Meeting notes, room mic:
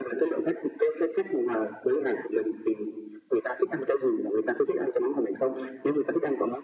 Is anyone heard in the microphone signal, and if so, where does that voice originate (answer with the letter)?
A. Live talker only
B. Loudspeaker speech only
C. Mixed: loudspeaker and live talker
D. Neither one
B